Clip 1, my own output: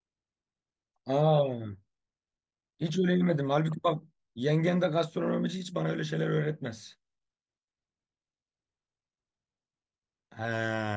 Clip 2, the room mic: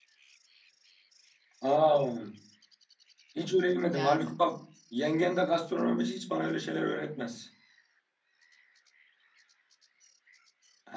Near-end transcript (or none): Yani.